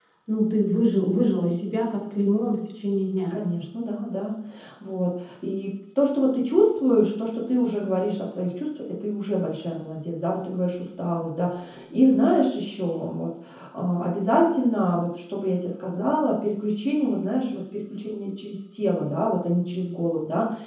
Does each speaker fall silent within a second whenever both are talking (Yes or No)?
Yes